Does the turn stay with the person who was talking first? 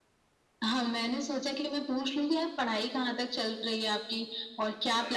Yes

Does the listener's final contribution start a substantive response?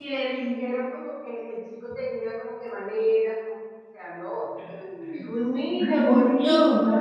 Yes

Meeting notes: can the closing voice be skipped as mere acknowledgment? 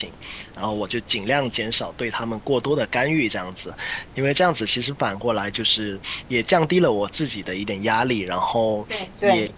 Yes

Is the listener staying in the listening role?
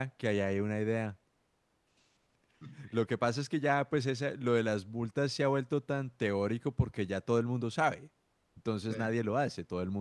Yes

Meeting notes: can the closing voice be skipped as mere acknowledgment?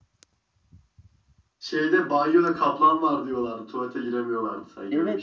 No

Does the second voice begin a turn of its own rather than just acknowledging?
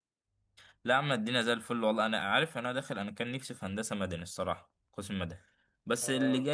No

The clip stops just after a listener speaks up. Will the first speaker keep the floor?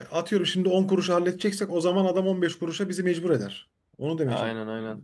No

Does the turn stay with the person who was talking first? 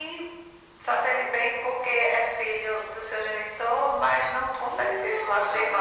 No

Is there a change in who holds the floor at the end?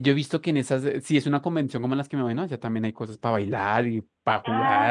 Yes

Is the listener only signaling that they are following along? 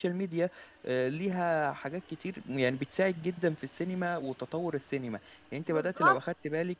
Yes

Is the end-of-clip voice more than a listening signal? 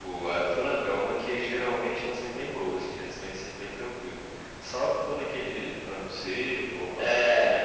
Yes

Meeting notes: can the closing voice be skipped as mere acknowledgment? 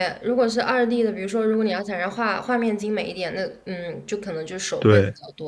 Yes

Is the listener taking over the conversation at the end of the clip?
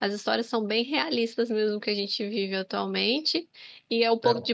No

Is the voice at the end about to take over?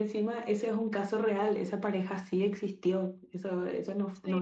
No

